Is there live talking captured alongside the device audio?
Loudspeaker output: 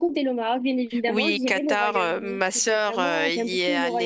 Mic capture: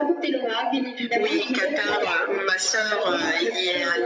No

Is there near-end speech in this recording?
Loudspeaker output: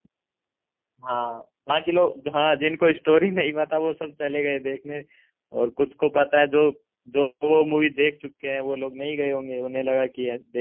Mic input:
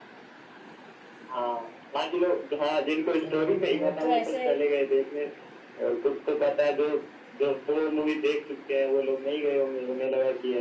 Yes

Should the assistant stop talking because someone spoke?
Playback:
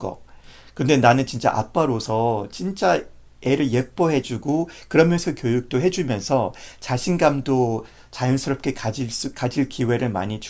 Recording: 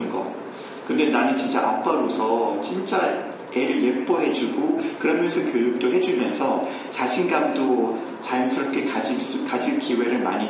No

